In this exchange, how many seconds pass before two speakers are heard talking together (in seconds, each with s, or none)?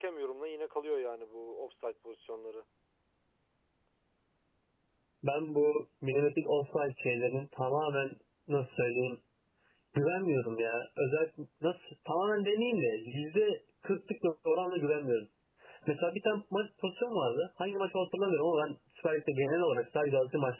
none